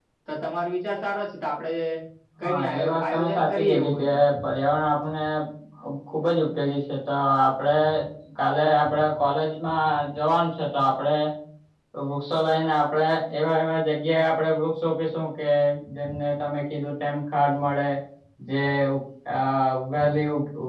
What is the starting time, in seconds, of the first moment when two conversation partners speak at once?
2.4 s

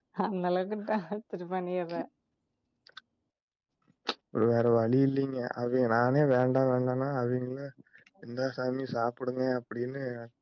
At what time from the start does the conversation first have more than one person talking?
none

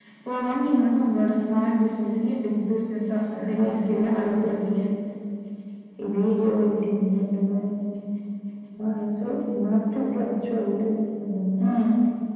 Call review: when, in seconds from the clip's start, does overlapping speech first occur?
3.3 s

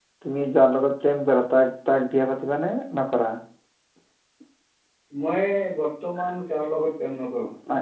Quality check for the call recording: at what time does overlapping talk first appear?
none

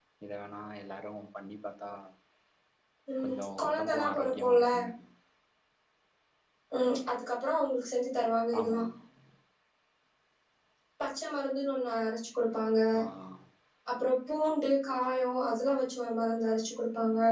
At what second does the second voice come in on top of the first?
3.2 s

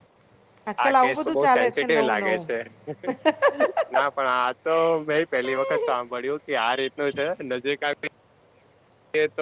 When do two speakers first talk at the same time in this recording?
0.8 s

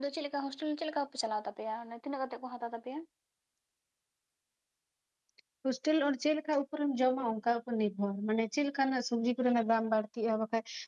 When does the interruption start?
none

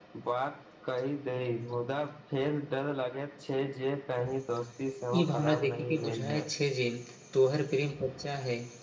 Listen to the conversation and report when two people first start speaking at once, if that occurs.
5.1 s

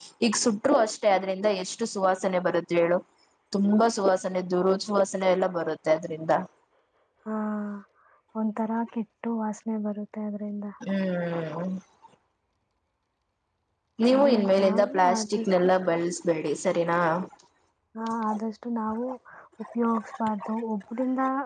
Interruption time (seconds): 14.2 s

